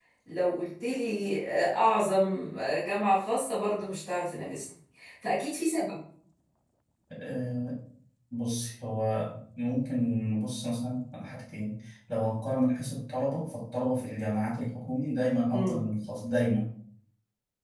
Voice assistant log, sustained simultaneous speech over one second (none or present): none